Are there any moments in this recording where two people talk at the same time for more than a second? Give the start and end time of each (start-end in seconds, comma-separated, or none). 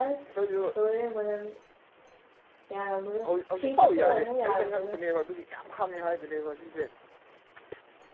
3.2-5.0